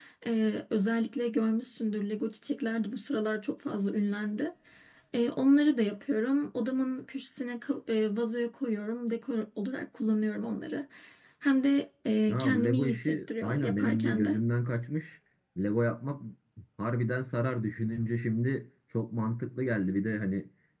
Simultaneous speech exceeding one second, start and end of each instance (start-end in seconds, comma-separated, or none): 12.3-14.3